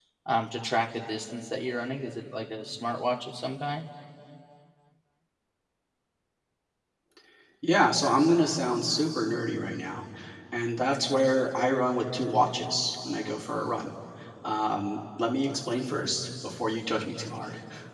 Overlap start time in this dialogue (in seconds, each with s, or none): none